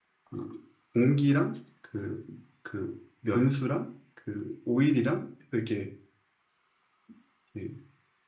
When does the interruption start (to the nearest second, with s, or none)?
none